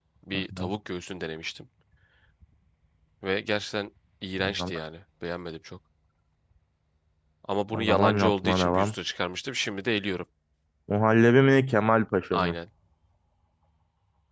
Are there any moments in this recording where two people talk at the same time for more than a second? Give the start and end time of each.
7.7-8.9

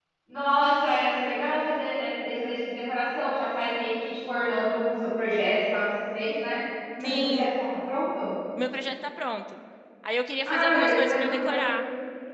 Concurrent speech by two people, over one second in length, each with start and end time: 10.4-11.7

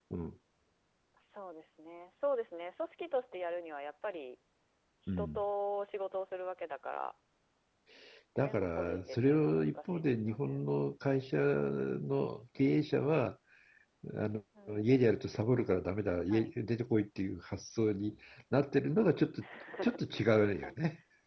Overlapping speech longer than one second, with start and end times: 8.4-10.6

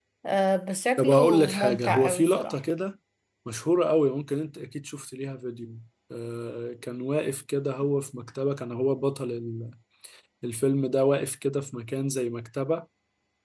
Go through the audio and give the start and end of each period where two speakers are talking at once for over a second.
1.0-2.6

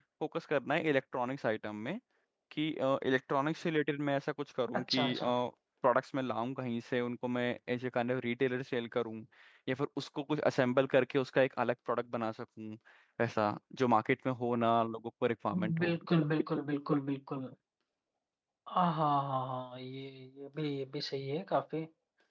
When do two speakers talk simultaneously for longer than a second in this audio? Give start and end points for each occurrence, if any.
none

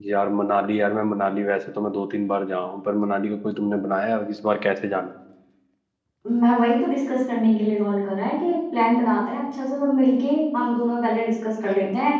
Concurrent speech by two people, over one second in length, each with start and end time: none

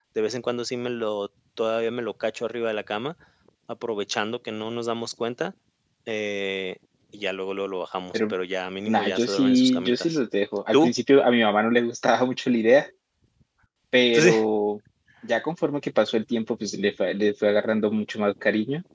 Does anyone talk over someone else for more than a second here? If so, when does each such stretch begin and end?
8.9-10.2

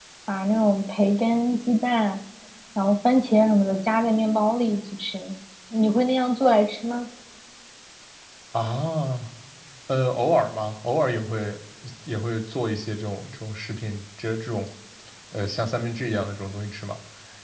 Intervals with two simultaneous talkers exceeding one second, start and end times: none

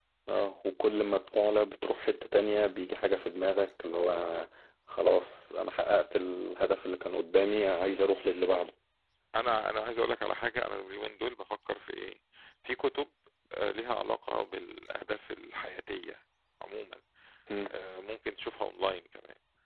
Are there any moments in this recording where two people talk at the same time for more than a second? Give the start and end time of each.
none

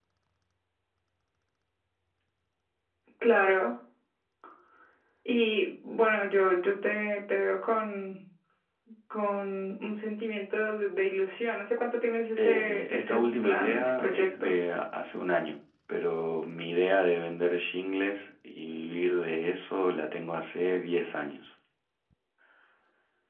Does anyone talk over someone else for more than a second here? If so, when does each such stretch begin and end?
12.4-14.5

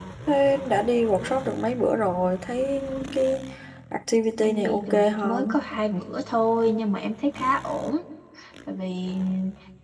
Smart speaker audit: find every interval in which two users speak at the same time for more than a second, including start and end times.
4.4-5.6

